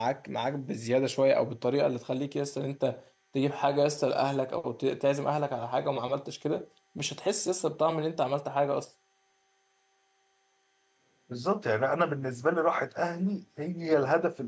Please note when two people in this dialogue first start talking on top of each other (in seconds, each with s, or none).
none